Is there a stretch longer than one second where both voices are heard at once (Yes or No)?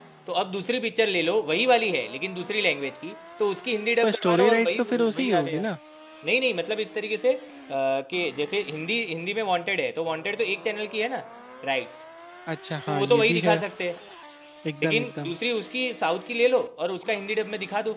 Yes